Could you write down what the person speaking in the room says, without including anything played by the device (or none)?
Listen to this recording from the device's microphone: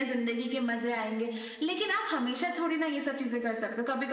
none